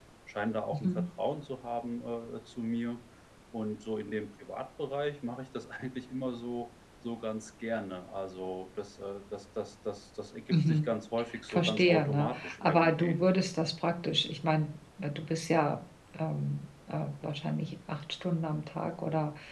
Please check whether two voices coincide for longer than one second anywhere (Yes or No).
Yes